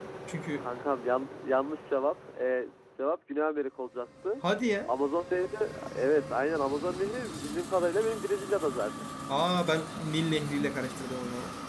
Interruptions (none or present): none